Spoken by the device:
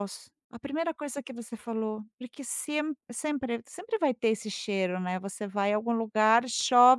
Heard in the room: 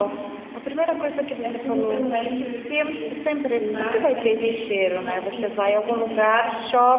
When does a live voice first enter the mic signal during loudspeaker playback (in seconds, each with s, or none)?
1.4 s